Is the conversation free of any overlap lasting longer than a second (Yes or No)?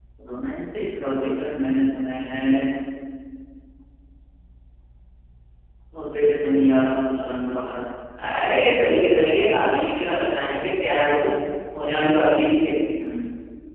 Yes